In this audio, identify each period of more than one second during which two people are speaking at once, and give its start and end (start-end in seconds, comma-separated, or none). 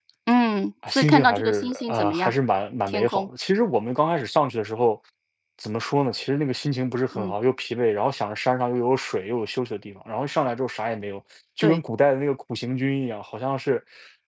0.9-2.3